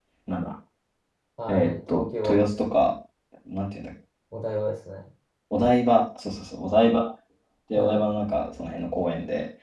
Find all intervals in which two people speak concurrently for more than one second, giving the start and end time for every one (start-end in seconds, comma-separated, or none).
1.5-2.9